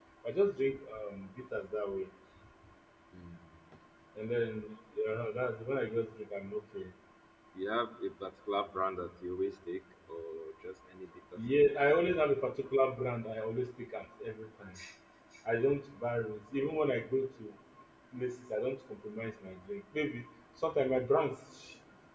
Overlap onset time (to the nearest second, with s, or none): none